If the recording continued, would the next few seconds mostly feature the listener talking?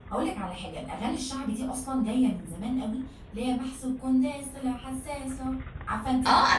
Yes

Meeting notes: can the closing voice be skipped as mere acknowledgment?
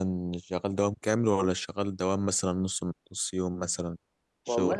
No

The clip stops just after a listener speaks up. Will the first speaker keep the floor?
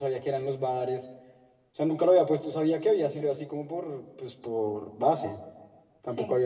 Yes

